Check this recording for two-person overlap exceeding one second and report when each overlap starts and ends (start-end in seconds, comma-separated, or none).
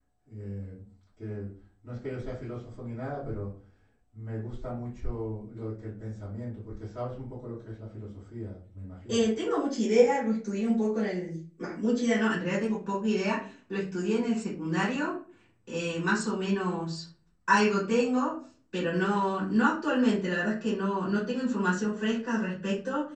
none